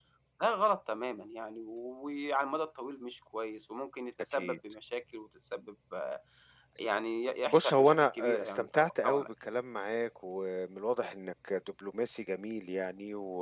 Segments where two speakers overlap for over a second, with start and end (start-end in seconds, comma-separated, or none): 7.5-9.3